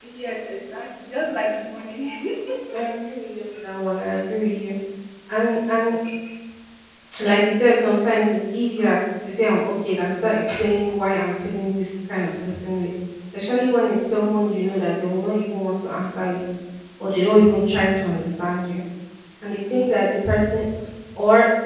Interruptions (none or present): none